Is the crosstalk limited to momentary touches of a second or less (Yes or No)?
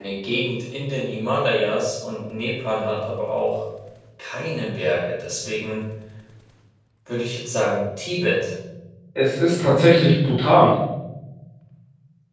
Yes